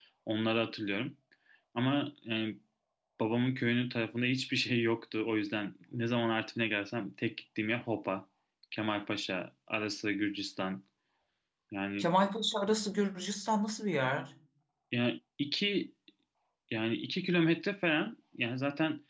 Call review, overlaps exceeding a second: none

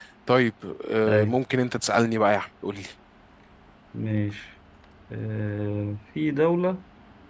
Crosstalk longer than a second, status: none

